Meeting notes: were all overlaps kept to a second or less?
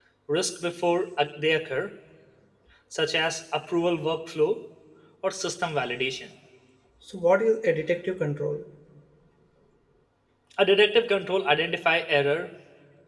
Yes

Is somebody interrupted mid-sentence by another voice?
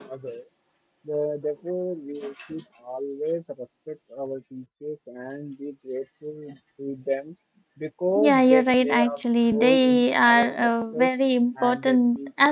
Yes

